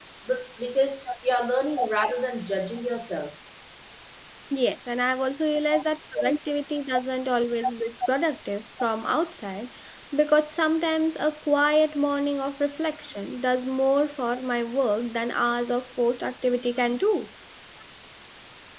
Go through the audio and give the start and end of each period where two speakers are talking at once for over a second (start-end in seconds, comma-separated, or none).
none